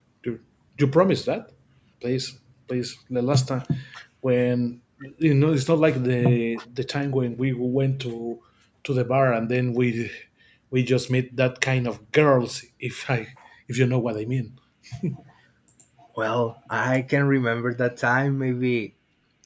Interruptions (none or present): none